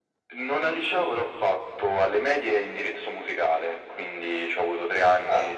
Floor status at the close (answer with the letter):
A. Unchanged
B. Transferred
A